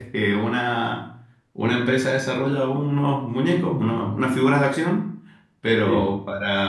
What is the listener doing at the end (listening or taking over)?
listening